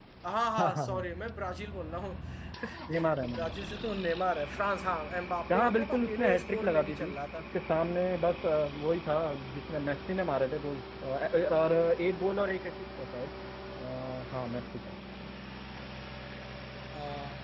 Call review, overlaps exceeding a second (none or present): present